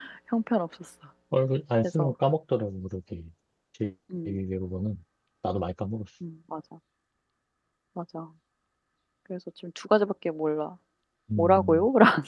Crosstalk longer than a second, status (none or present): none